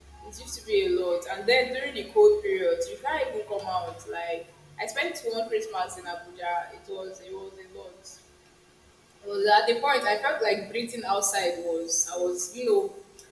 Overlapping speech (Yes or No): No